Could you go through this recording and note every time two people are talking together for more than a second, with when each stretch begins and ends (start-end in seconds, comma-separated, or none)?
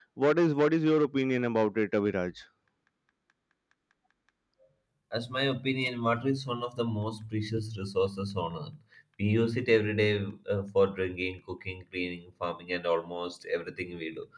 none